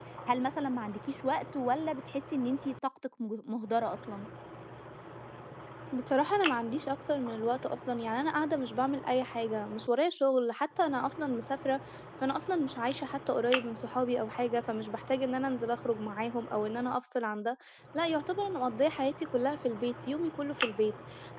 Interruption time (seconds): none

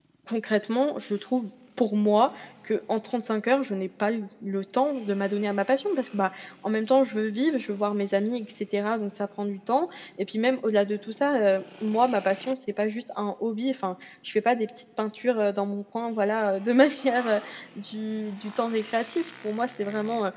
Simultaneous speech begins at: none

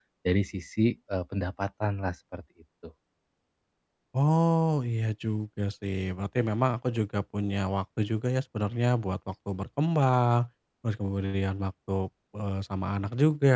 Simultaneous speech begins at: none

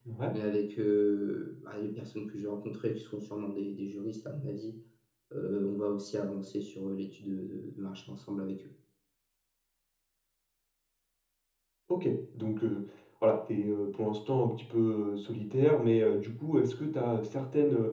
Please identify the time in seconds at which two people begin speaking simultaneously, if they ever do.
none

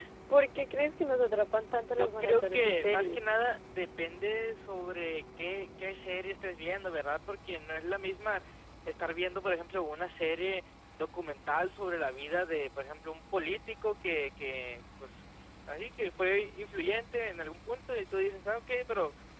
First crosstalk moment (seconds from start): 2 s

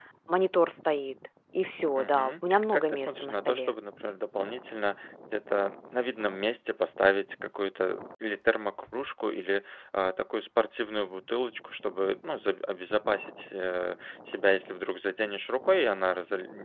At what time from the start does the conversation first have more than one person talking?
2 s

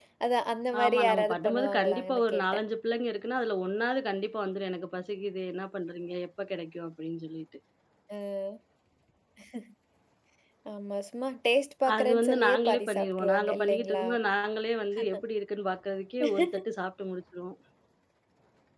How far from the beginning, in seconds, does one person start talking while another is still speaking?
1 s

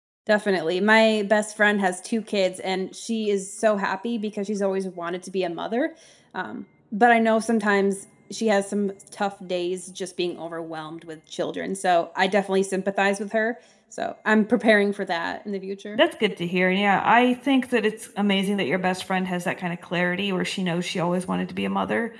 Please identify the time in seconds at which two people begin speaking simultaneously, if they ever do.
none

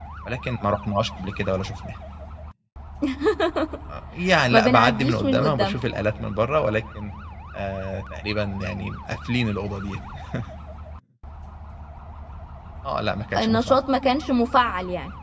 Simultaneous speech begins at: 5 s

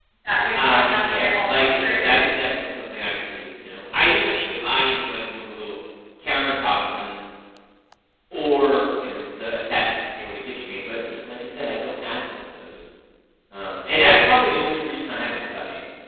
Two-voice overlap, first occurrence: 1 s

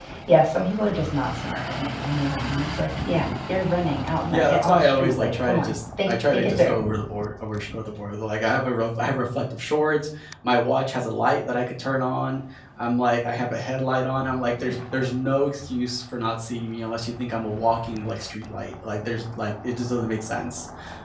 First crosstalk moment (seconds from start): 4 s

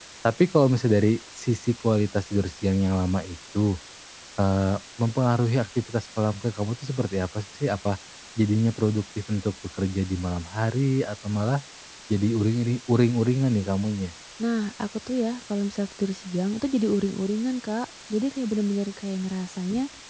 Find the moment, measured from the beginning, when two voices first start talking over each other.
none

